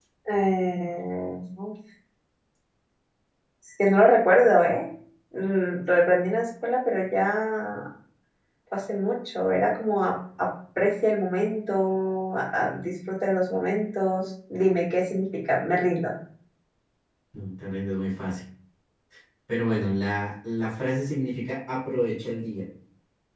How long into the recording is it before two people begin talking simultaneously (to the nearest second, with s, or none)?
none